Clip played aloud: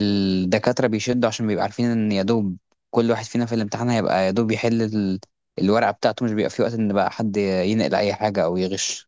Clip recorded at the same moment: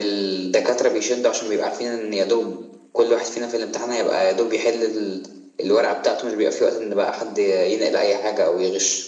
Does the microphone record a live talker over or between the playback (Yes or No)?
No